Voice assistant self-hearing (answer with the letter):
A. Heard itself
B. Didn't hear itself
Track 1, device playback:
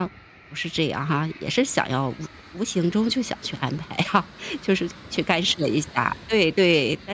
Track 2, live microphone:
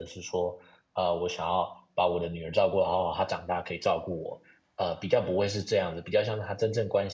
B